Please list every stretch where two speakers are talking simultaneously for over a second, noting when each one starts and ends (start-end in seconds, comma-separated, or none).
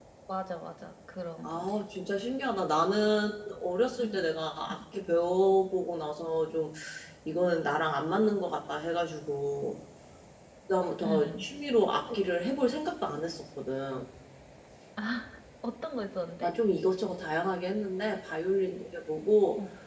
none